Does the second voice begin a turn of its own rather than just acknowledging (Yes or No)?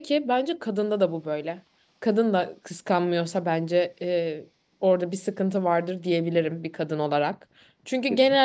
No